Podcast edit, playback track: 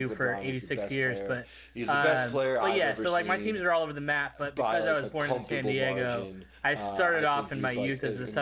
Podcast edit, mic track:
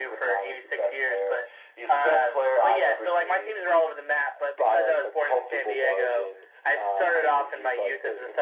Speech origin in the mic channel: echo only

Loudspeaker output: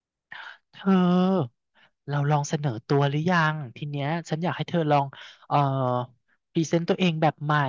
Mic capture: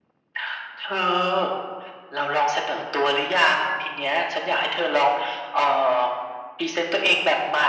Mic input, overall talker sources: echo only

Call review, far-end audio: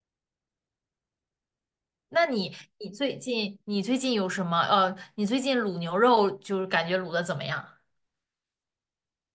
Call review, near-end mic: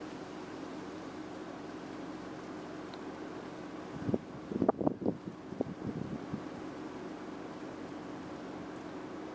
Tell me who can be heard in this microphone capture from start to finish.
neither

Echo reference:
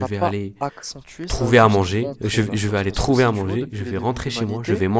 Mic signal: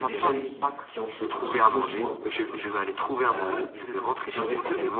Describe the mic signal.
both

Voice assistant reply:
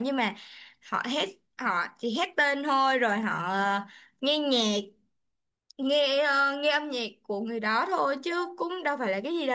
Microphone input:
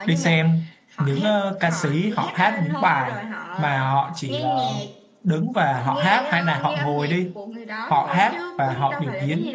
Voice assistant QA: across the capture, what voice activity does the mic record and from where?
both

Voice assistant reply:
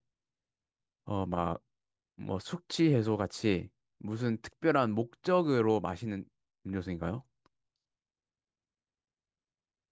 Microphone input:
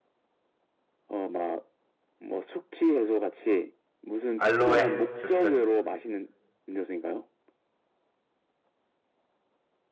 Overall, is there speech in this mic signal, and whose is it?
both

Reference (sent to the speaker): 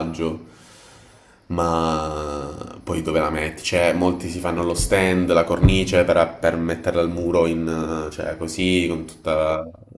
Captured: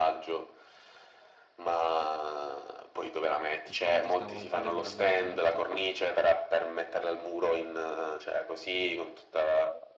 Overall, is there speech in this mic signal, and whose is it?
both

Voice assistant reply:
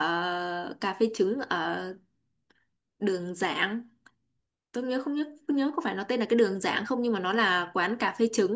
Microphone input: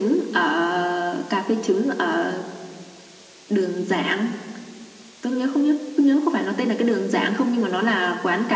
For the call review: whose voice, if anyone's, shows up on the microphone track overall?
echo only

